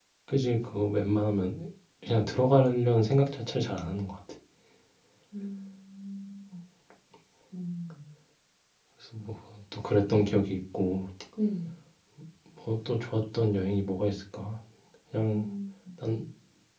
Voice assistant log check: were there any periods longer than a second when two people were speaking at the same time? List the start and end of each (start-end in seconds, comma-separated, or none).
none